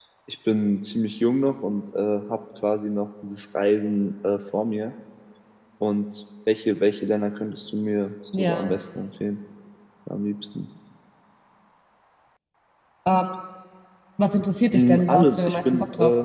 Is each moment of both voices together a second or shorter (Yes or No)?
No